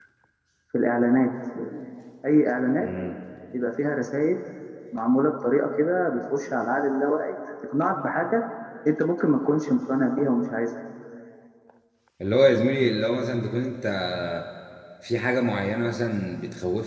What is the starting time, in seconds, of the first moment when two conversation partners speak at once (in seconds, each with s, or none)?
none